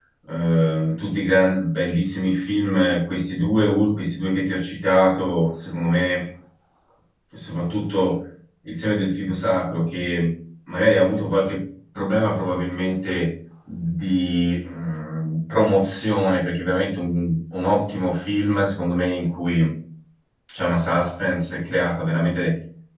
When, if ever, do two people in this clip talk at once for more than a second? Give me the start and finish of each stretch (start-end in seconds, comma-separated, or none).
none